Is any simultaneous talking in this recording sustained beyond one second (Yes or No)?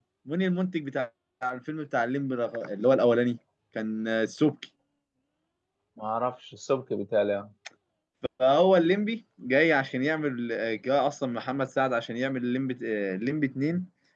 No